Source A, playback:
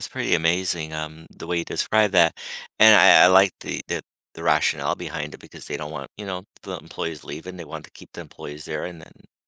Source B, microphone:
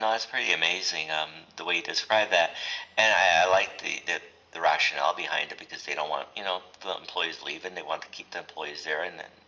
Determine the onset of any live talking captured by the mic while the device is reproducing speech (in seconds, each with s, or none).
none